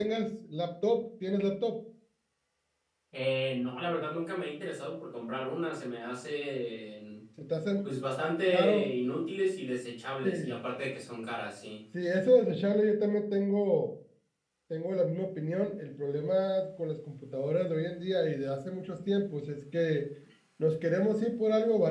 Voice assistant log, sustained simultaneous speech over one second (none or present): none